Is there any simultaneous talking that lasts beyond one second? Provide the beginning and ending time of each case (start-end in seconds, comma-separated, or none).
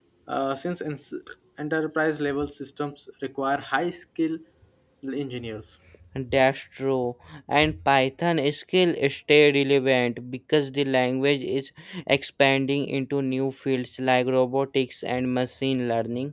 none